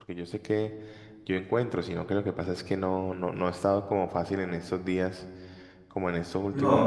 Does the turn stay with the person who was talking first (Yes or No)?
Yes